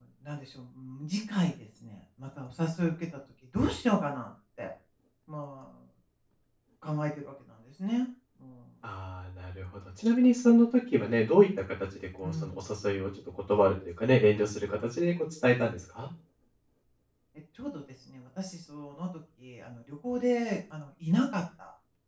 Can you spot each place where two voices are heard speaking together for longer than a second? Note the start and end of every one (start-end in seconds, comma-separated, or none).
none